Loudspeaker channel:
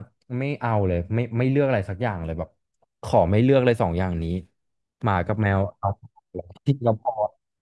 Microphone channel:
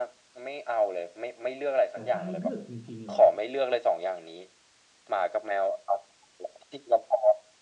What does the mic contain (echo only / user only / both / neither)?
both